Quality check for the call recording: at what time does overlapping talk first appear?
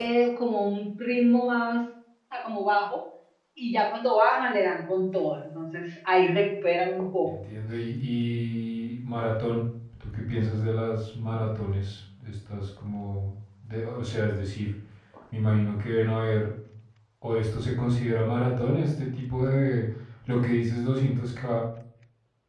none

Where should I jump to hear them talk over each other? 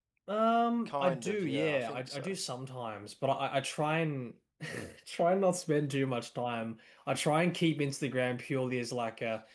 0.9 s

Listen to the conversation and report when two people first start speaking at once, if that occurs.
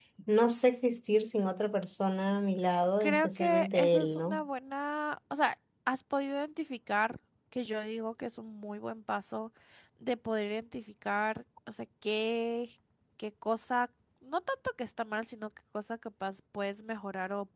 3.0 s

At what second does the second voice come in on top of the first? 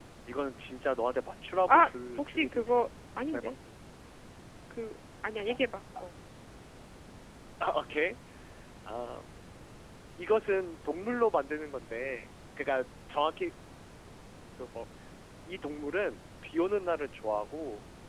1.7 s

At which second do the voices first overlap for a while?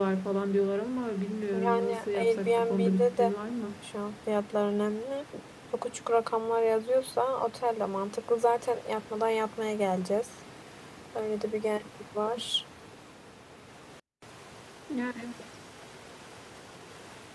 1.5 s

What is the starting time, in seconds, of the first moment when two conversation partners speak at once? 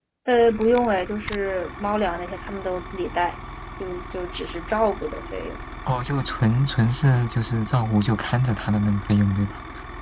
none

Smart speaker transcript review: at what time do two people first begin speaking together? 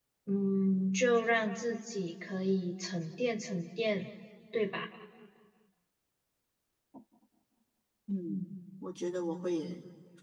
none

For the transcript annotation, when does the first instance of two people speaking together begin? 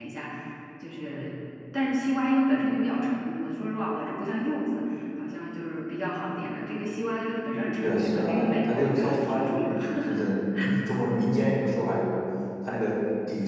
7.8 s

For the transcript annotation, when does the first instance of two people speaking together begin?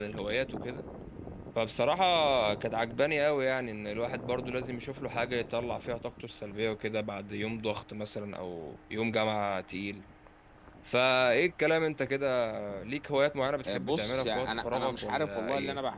13.7 s

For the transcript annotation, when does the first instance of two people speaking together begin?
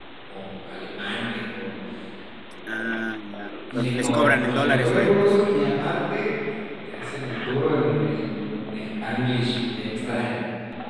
3.7 s

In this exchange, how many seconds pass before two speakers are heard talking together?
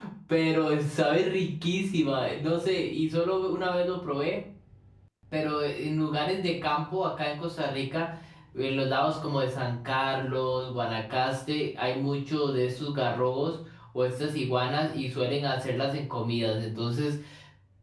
none

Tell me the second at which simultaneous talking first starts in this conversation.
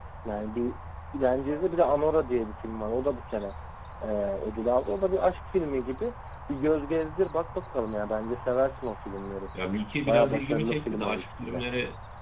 10.1 s

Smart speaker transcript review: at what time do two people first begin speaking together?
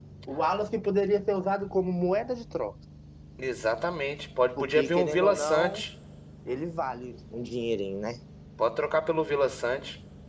4.6 s

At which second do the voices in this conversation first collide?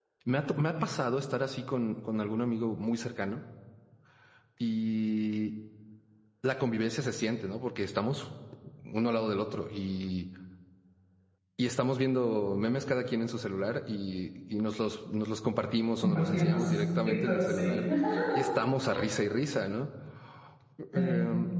16.0 s

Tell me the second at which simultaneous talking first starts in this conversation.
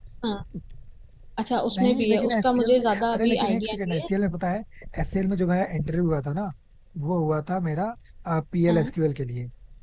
1.8 s

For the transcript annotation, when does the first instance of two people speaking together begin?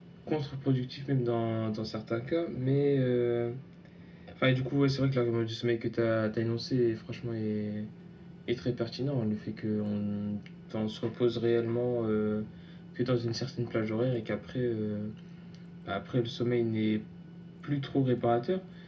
none

